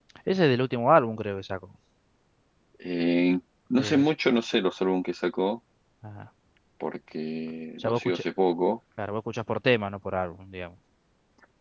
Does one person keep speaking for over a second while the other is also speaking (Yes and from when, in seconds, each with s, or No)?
No